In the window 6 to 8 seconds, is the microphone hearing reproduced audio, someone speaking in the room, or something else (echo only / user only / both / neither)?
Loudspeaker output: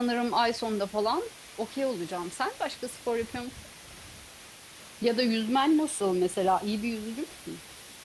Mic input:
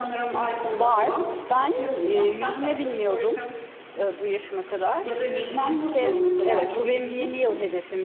both